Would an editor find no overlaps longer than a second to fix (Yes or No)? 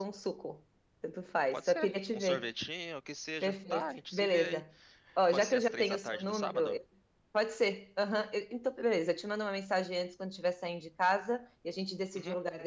No